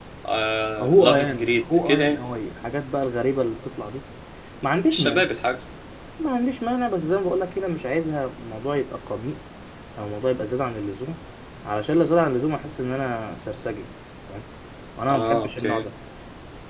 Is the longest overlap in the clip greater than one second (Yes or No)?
Yes